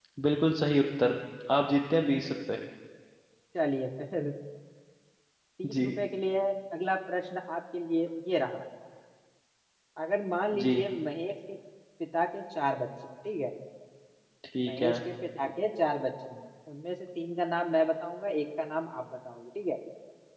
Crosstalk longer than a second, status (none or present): none